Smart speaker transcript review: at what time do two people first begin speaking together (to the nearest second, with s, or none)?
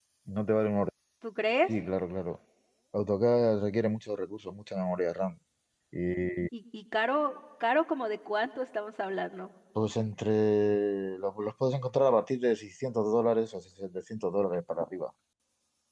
none